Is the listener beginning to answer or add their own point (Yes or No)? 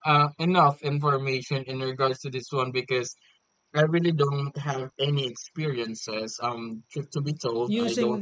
No